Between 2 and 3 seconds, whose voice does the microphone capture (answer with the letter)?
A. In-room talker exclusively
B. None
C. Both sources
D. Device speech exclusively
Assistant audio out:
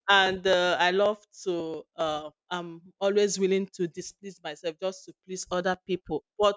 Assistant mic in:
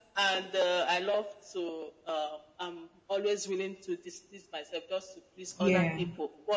D